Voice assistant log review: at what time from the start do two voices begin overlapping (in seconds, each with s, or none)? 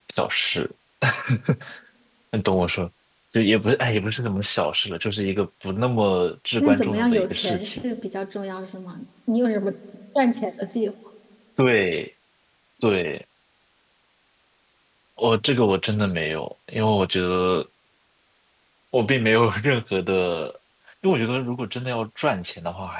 6.6 s